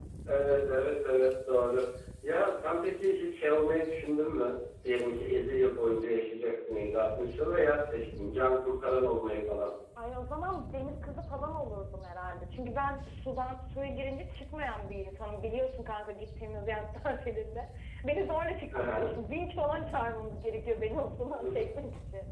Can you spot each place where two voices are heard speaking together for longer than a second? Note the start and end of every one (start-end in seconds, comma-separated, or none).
none